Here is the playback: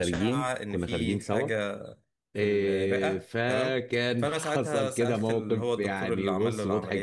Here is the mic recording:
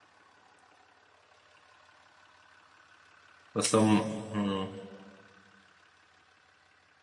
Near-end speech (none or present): present